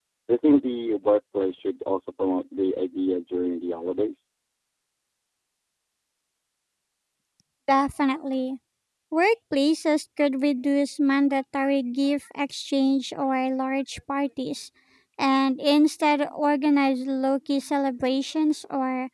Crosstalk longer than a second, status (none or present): none